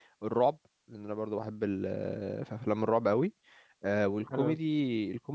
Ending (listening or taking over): listening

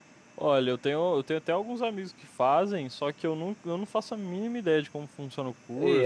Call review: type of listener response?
taking over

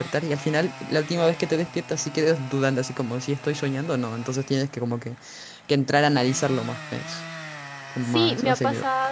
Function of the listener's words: taking over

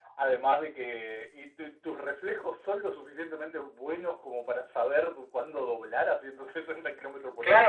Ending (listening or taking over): taking over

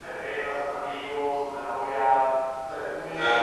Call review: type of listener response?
listening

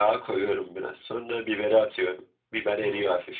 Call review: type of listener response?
listening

